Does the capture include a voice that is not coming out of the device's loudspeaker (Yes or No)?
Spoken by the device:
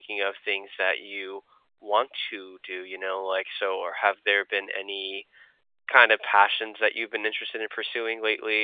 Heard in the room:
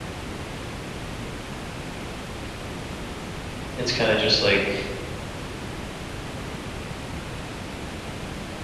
Yes